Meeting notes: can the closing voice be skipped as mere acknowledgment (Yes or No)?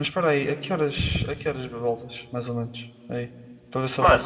Yes